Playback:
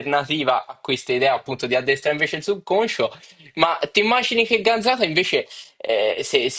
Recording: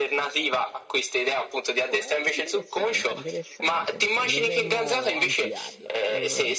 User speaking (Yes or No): Yes